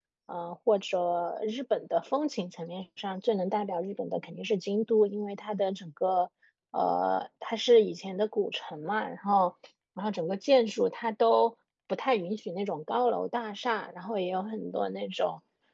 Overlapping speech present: No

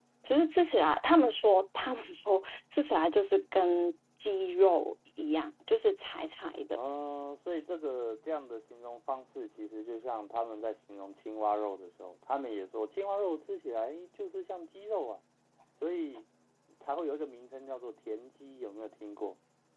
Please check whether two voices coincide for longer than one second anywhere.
No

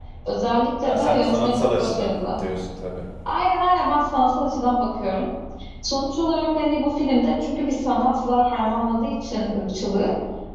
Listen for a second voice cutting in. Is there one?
Yes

